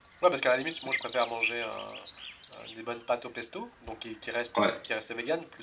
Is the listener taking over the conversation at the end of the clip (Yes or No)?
No